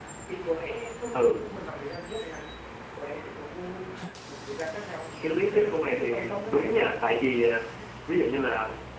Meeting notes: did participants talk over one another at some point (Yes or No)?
Yes